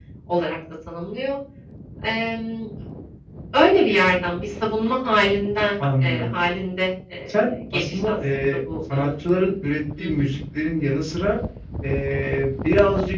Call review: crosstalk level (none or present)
present